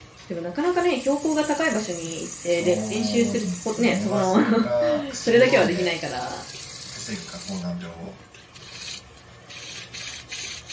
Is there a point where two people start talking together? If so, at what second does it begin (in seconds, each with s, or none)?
2.5 s